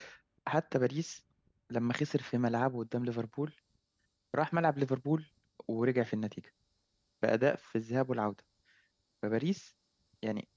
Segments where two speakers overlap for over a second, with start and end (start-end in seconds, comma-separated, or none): none